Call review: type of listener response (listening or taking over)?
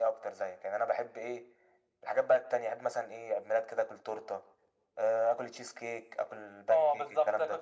taking over